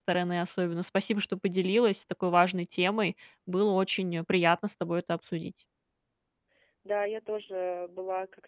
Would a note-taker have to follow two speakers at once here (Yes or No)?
No